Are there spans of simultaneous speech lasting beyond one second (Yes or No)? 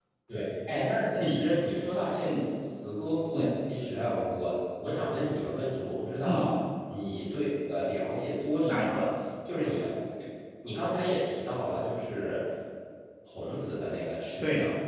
No